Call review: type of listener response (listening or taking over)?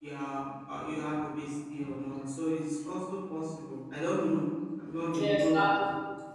taking over